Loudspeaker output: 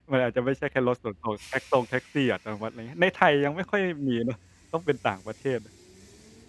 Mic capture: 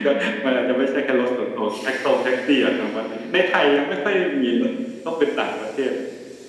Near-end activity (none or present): none